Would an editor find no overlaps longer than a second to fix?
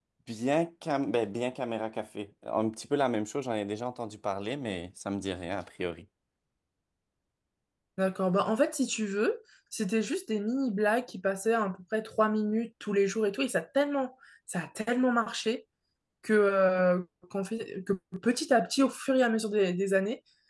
Yes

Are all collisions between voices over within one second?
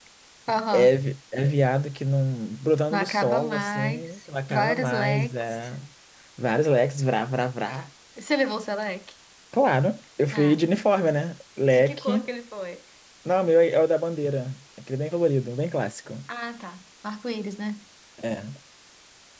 No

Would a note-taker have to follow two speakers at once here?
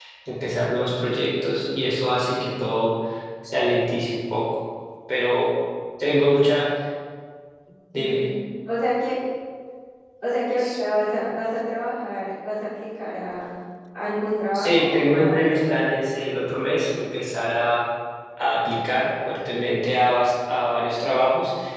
Yes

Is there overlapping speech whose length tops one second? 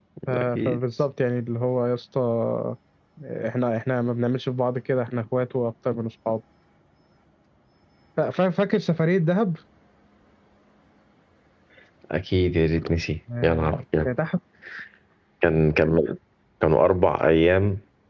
No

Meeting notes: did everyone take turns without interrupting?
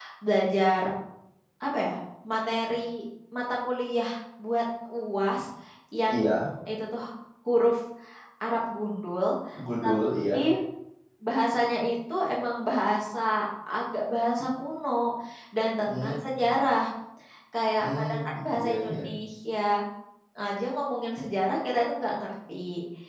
No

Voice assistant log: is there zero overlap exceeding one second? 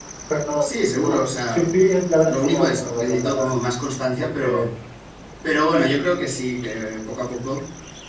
No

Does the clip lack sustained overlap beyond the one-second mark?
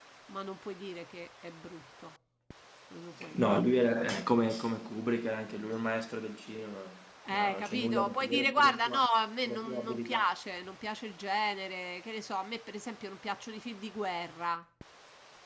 No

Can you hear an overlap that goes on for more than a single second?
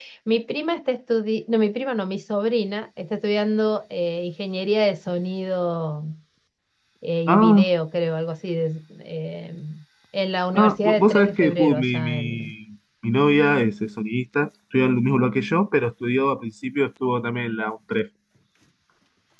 Yes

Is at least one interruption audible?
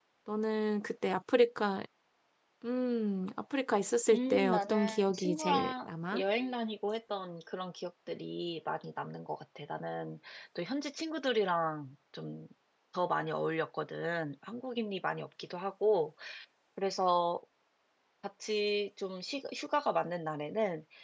Yes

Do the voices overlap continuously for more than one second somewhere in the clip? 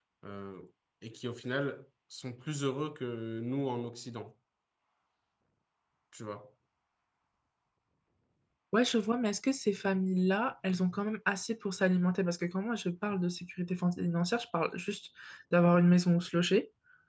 No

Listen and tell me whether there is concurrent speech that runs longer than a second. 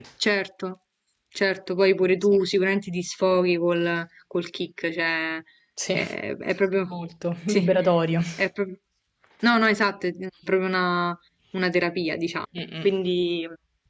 No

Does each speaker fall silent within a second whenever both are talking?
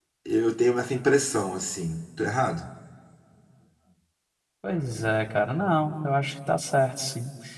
Yes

